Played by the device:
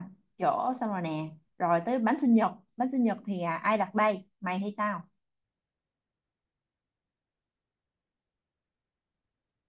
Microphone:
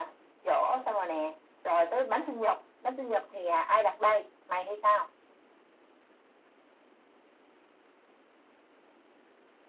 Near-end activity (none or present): none